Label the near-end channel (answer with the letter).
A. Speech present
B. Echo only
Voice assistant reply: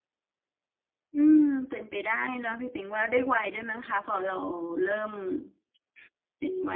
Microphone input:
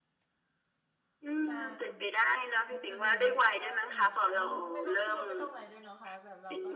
A